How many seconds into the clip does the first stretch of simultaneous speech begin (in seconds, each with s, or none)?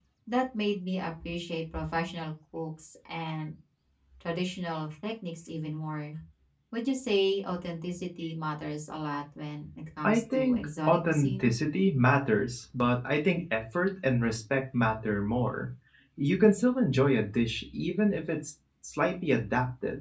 10.0 s